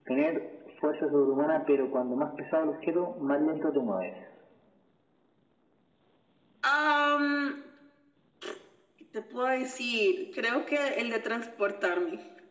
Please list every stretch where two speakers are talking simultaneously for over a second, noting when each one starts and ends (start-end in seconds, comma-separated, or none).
none